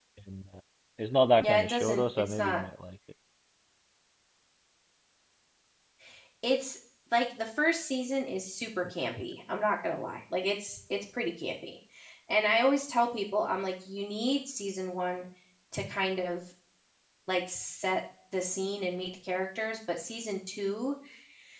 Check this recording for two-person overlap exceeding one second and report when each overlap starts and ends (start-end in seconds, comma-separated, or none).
1.4-2.6